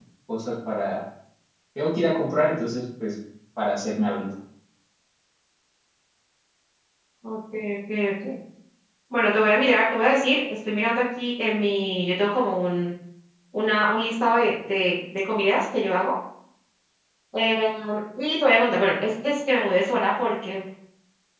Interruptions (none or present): none